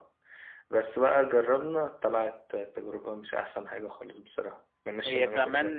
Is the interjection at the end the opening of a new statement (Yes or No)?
Yes